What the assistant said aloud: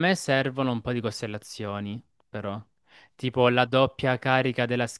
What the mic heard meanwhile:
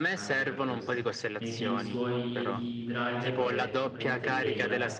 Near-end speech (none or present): present